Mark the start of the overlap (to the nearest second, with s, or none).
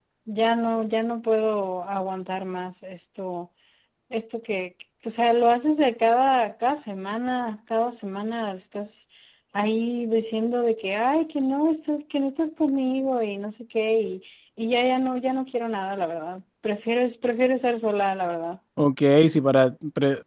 none